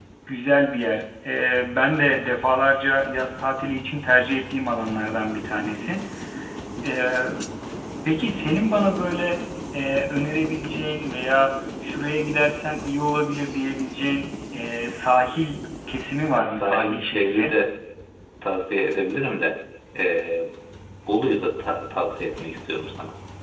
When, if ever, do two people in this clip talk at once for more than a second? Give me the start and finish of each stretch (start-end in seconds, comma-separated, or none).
16.3-17.6